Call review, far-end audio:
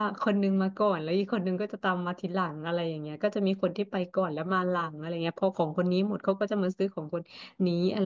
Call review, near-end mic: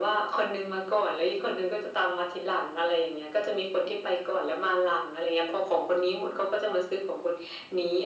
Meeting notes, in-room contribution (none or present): none